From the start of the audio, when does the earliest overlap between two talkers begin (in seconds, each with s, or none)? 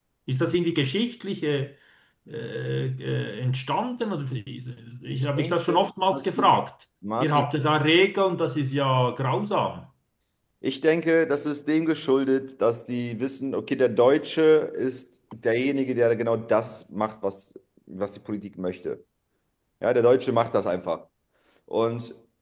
5.1 s